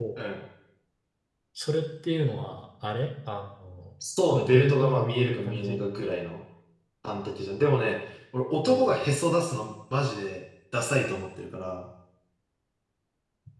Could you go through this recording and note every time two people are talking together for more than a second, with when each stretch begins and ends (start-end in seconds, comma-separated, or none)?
4.3-5.8